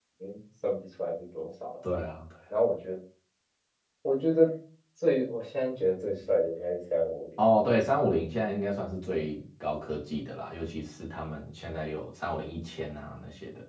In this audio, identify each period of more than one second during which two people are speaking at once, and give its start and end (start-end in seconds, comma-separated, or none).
none